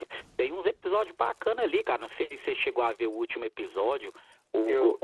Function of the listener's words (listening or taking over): listening